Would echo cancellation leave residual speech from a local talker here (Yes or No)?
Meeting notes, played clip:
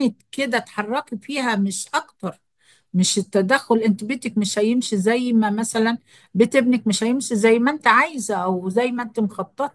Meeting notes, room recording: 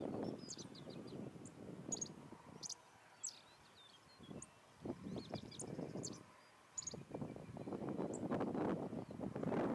No